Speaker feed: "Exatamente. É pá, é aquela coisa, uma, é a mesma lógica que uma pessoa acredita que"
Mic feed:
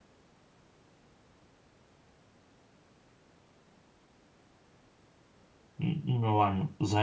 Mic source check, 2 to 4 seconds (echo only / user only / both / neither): neither